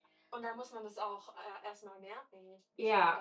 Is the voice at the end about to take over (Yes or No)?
Yes